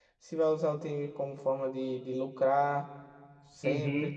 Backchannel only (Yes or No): No